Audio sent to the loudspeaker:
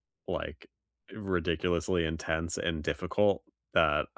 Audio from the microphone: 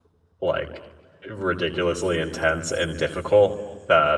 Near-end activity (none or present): none